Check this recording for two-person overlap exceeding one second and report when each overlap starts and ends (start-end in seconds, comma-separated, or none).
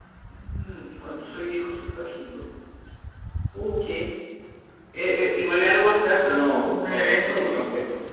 6.3-7.6